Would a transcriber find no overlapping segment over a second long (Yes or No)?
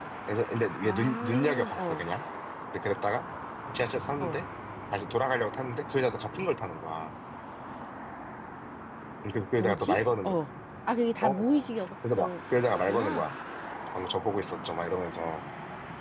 No